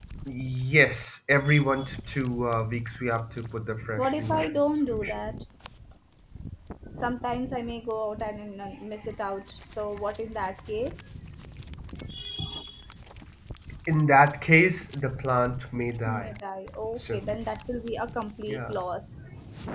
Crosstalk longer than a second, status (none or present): present